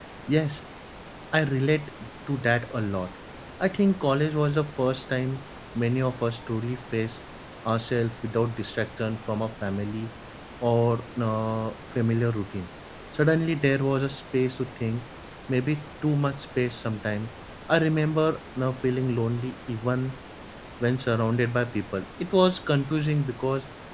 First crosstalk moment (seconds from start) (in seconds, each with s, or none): none